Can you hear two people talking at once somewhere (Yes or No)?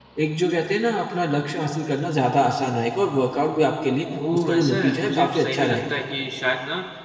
Yes